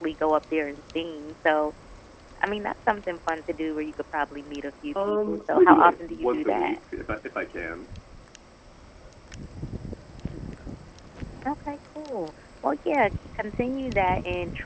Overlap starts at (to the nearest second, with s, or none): 5 s